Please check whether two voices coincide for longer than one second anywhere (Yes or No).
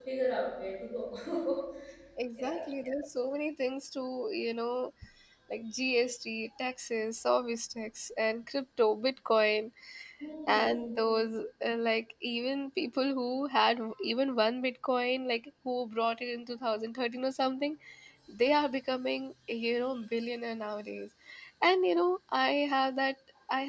No